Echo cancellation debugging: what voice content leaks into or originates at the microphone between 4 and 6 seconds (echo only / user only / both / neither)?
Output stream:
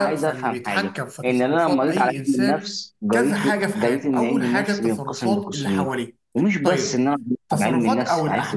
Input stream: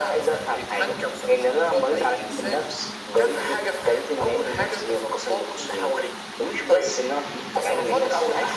echo only